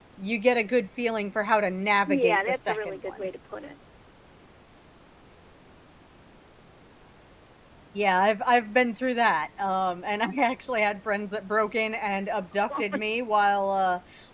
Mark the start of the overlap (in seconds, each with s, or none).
2.1 s